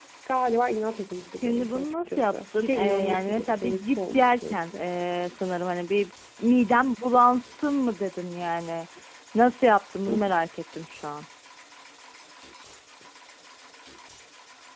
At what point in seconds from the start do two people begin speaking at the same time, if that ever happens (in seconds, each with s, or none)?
1.4 s